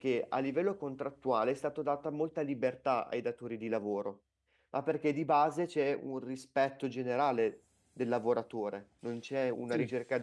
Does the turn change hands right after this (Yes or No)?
No